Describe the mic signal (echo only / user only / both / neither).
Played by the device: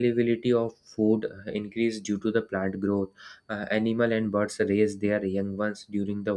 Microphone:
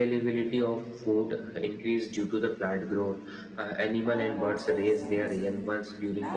both